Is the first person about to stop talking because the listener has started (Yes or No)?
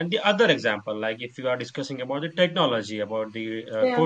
No